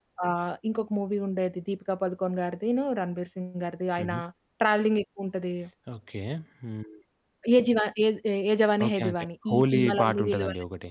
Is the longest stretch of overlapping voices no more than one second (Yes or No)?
No